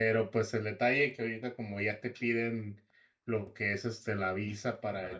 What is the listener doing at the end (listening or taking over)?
listening